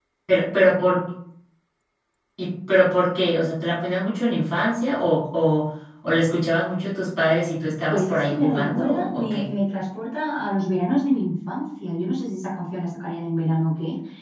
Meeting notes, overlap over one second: present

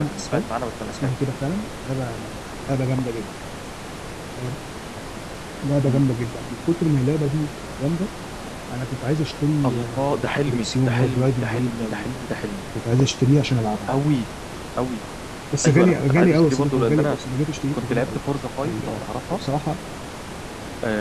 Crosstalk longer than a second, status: present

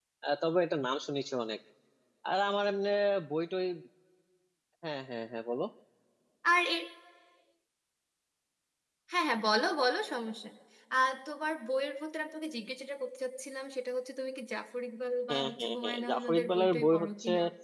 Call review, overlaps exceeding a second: present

